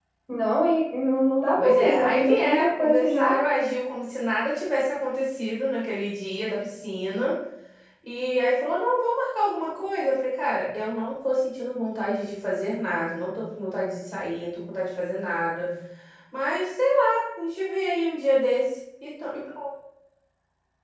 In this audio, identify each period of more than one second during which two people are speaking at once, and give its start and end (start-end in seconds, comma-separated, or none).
1.6-3.3